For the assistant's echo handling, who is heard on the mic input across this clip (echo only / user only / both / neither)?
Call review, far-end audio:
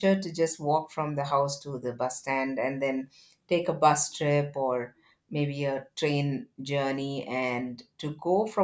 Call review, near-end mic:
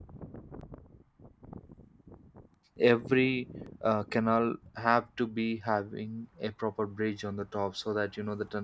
user only